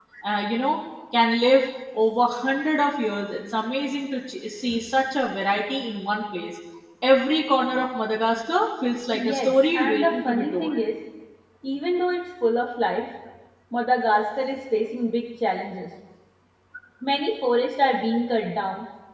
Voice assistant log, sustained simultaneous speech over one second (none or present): present